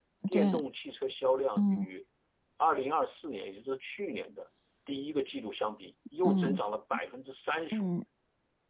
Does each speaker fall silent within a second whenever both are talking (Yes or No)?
Yes